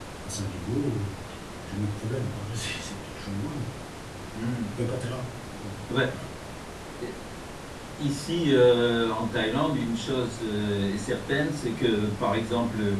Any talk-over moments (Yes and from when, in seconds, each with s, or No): No